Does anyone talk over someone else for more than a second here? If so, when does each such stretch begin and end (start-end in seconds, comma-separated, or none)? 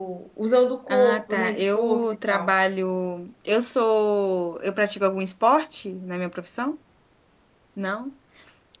0.9-2.5